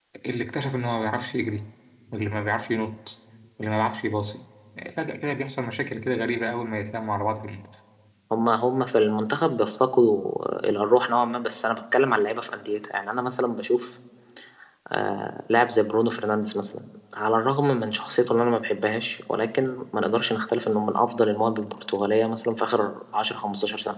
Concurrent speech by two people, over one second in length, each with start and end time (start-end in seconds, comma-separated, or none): none